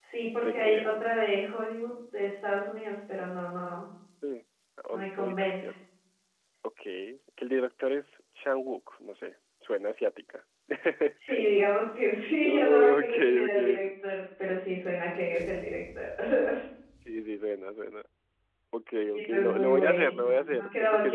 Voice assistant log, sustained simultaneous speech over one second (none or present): present